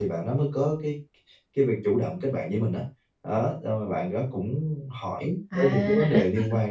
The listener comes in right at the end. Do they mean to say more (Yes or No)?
No